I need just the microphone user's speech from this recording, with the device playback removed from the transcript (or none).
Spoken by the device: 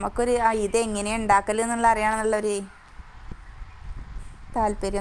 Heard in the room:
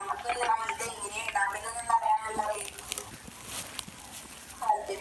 none